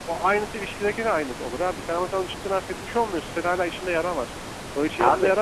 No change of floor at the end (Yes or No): Yes